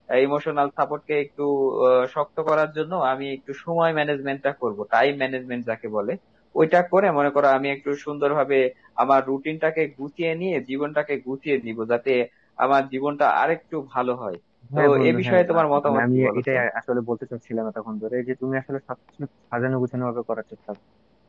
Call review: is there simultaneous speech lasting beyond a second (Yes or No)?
Yes